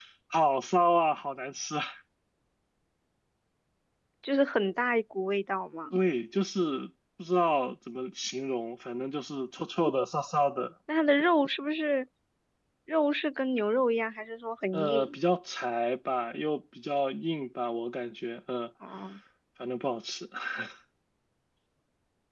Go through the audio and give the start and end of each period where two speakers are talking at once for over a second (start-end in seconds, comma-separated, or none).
none